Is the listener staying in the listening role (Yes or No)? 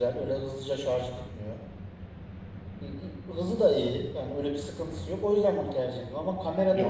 No